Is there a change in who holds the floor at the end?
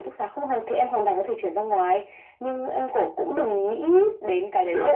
No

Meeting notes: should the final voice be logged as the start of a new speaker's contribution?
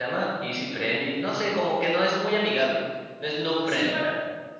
Yes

